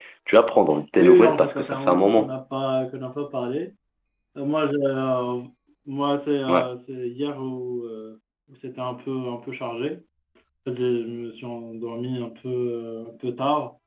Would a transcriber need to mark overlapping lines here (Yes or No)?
Yes